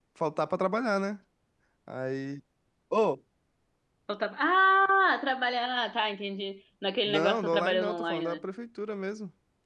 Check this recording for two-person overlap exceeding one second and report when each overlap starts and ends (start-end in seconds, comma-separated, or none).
7.0-8.4